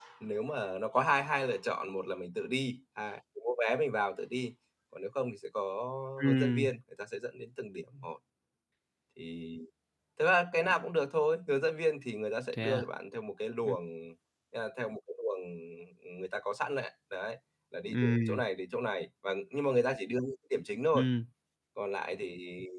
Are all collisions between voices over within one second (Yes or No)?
Yes